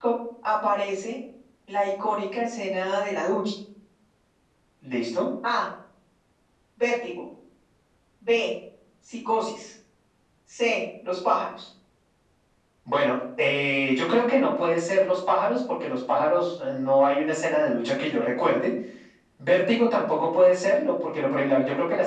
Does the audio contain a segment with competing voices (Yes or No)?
No